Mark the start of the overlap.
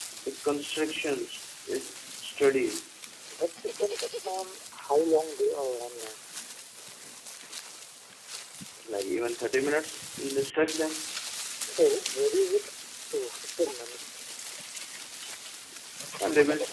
none

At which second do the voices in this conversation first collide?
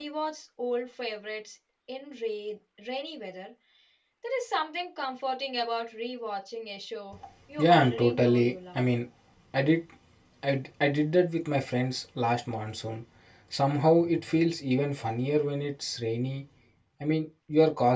8 s

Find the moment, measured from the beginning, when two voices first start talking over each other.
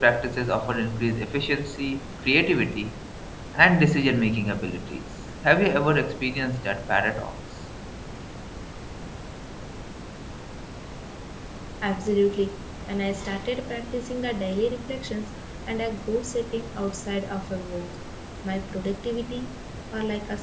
none

